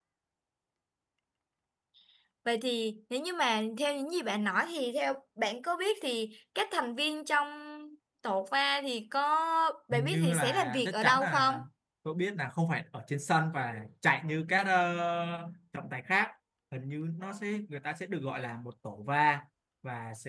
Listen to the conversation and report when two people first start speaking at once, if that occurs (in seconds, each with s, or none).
9.9 s